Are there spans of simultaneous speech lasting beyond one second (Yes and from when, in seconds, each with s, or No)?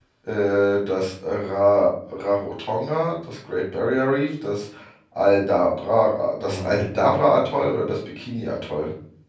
Yes, from 6.5 s